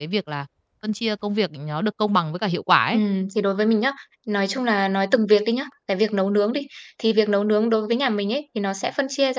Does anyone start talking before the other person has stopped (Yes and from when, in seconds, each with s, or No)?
No